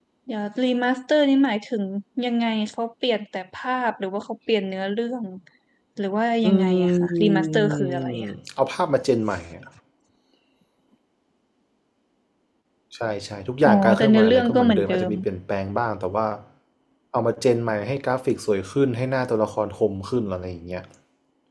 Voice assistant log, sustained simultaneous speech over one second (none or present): present